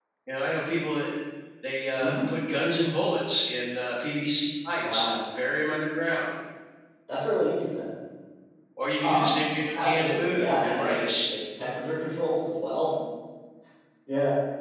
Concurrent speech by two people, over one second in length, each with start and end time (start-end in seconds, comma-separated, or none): 9.7-11.2